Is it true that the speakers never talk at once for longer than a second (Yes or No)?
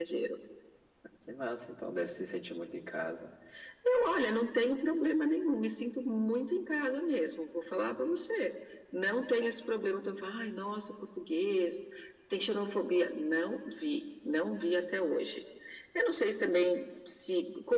Yes